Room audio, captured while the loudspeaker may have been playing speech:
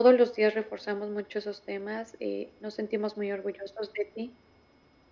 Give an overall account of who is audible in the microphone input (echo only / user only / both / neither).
echo only